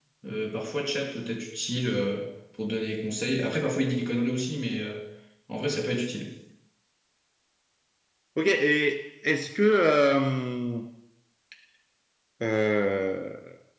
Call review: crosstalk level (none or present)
none